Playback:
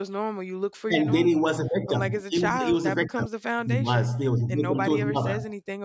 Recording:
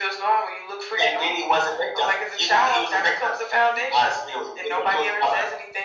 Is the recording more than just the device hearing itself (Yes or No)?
No